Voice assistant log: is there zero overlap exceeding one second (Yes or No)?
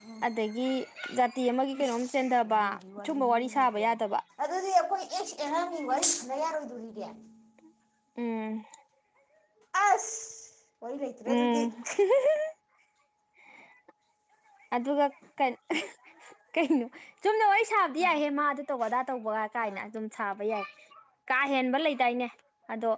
No